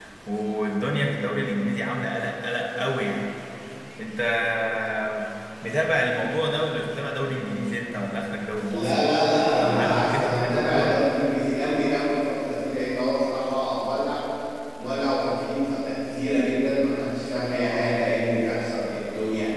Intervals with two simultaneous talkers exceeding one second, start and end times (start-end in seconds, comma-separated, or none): 8.6-11.0